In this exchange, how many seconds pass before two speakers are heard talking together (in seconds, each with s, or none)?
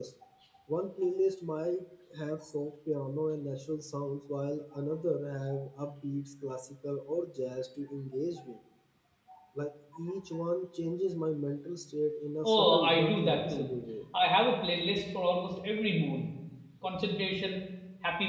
12.4 s